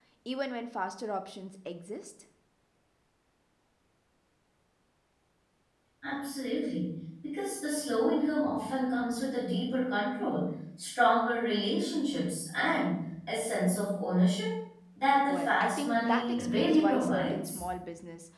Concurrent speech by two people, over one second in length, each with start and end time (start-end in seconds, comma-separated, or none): 15.3-17.6